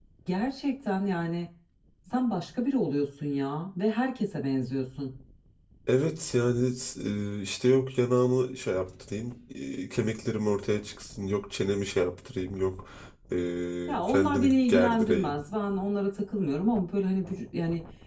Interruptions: present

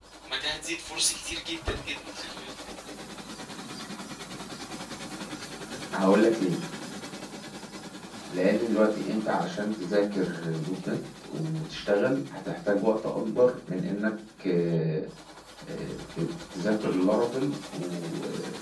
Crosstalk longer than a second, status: none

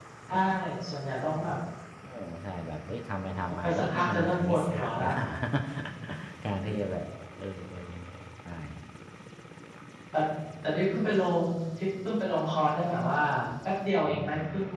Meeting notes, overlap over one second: present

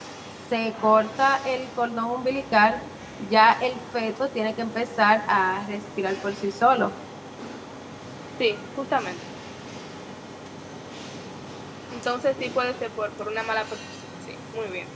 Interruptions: none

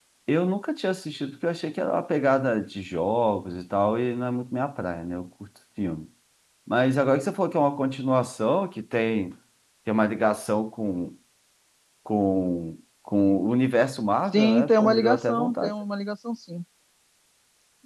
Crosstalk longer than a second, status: present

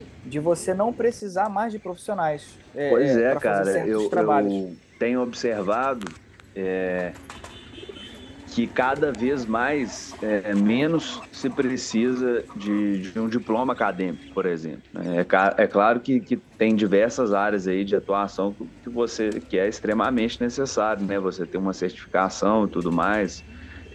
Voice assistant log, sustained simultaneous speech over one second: present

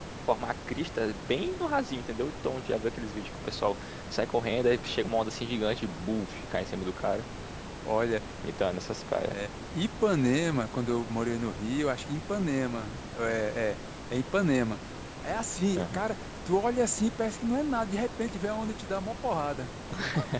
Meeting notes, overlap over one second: none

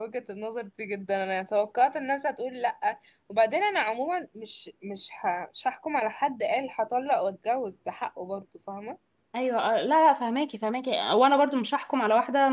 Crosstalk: none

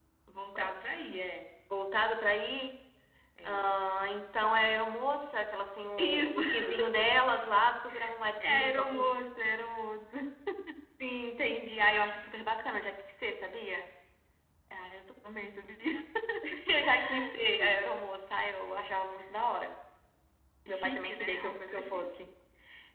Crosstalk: present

